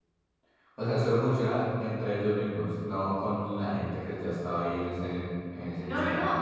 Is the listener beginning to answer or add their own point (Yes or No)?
Yes